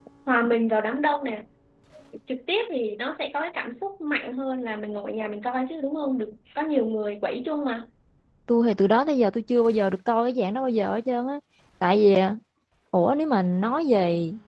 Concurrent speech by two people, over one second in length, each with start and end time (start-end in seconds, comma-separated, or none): none